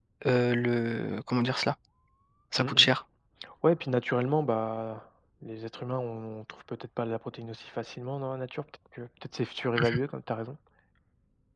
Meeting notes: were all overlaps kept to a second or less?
Yes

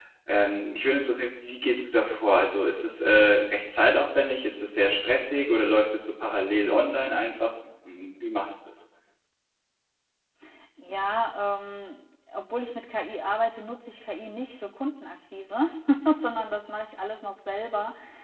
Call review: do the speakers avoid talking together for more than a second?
Yes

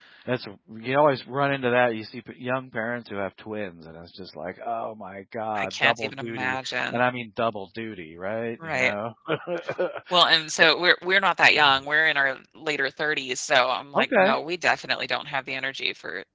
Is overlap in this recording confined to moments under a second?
No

